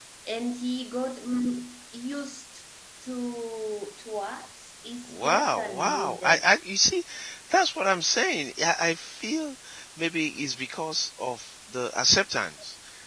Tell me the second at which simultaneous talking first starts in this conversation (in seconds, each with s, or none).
5.1 s